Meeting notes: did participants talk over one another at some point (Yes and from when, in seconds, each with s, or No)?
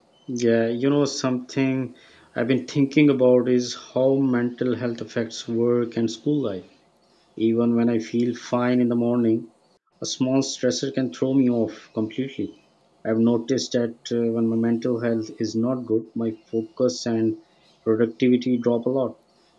No